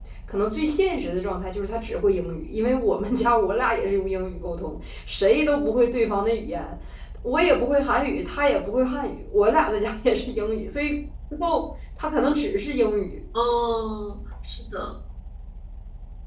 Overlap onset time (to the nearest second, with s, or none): none